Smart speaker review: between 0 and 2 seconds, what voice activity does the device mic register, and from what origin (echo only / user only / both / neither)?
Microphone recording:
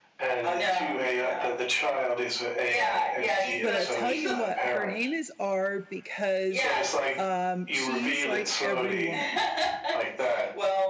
echo only